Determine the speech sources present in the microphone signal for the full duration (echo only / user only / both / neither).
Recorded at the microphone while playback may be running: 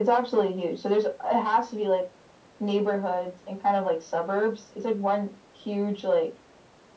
echo only